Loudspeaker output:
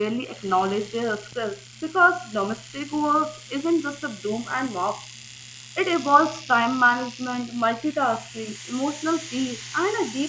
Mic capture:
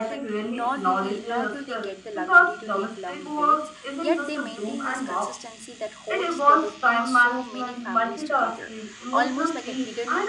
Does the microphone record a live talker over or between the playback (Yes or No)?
Yes